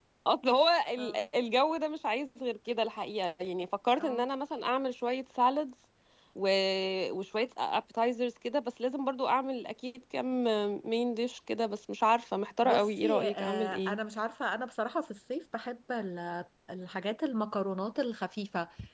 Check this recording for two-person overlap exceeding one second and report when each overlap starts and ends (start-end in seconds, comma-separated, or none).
12.6-14.0